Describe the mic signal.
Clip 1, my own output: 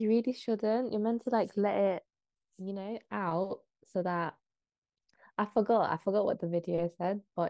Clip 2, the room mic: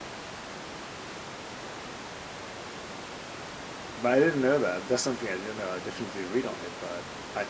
user only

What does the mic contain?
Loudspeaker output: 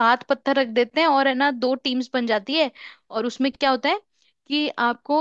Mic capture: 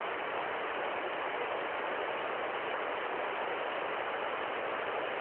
neither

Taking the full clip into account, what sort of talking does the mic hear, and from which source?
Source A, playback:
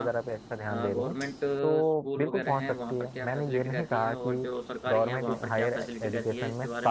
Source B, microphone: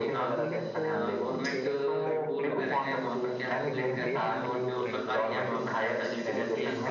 both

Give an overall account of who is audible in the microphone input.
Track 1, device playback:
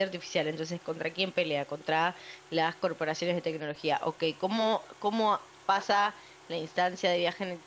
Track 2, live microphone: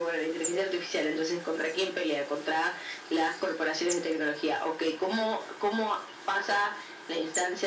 echo only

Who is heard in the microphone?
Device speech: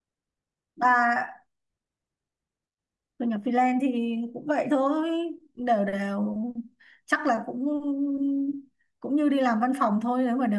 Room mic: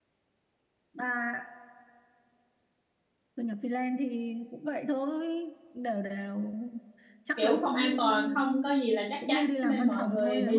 both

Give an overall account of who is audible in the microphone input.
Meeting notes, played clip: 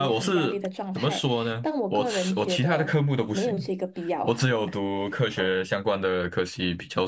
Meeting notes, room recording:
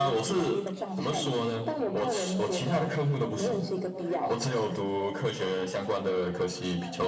both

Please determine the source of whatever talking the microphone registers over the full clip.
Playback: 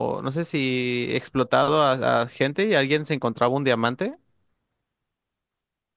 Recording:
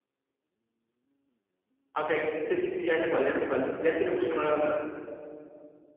user only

